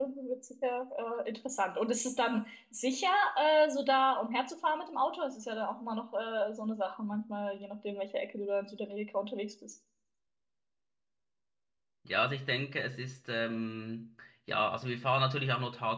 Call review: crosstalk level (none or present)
none